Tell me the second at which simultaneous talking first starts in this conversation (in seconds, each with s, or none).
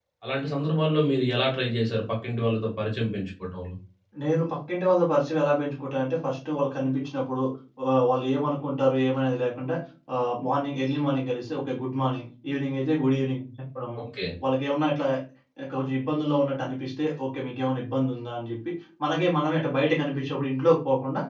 none